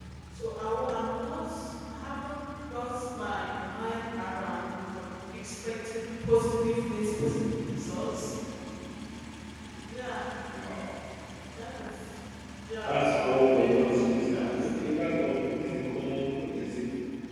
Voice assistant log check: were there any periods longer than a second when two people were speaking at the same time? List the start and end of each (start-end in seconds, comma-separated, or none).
12.8-14.7